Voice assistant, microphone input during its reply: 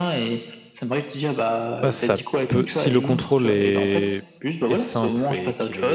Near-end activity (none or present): present